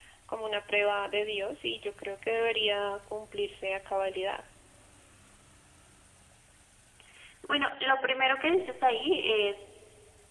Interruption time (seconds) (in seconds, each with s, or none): none